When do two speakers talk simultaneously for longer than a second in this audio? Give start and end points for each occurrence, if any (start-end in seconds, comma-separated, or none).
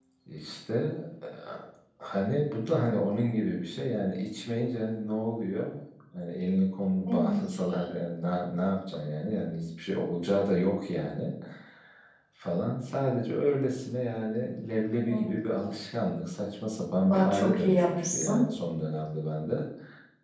17.1-18.4